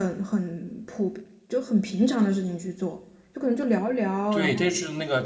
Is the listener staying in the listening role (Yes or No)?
No